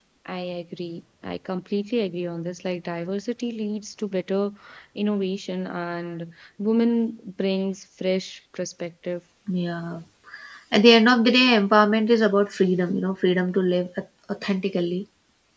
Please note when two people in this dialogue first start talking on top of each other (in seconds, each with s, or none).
none